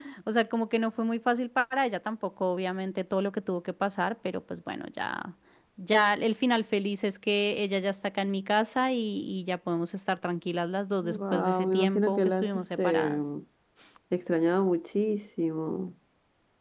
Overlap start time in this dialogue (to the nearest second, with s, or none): 11 s